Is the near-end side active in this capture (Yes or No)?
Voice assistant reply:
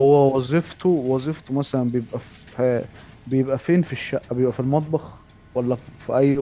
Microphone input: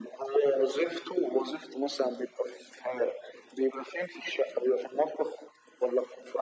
No